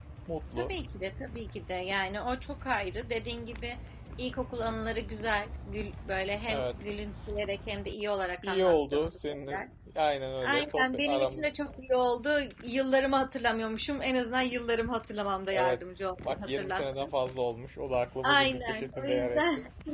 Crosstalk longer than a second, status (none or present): present